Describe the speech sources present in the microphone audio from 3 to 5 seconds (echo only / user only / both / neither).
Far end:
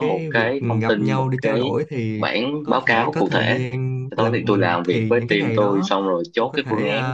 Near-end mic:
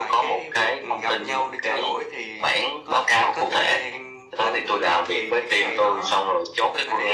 echo only